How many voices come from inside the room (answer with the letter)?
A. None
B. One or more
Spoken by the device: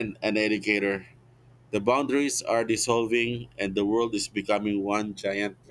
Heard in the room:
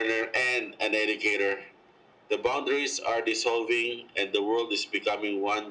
A